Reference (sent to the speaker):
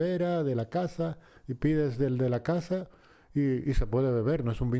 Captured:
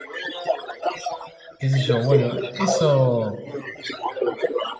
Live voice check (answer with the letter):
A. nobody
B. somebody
B